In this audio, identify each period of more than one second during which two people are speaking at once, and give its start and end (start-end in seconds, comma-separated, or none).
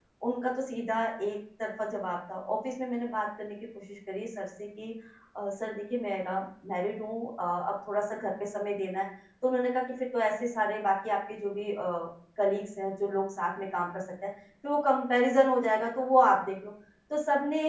none